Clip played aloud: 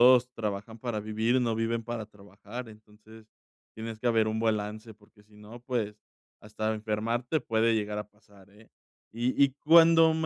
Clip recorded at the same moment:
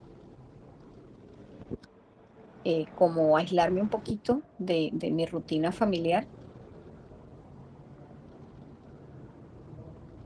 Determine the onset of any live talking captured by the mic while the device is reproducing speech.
2.6 s

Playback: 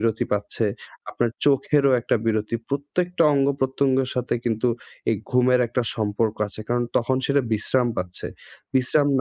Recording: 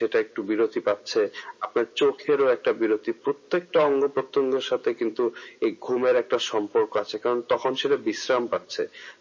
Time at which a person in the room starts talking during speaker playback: none

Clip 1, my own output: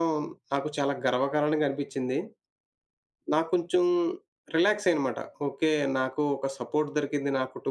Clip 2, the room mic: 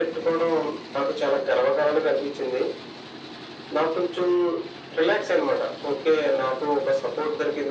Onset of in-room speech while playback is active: none

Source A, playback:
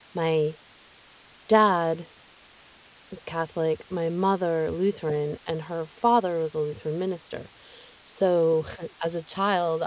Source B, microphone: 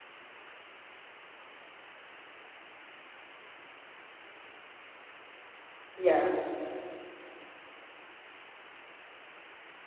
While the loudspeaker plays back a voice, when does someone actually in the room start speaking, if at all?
5.9 s

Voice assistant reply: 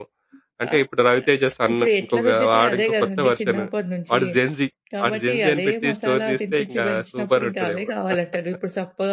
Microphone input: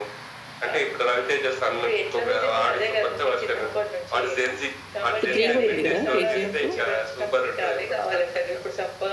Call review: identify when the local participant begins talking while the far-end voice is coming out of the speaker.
5.1 s

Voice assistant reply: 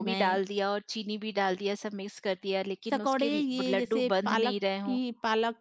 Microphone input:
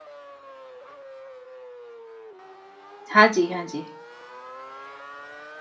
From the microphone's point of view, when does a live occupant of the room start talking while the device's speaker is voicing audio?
3.1 s

